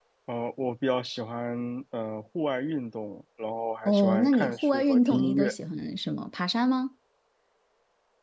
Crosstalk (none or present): present